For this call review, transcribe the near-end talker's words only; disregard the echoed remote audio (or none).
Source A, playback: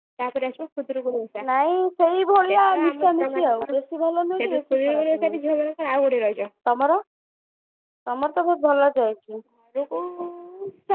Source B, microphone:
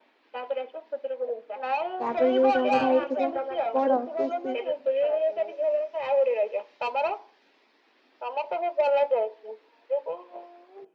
ତାପରେ ଯୋଉ ରଙ୍ଗ ଟା ହେଇଥିବ ବଡ। ତ ସେ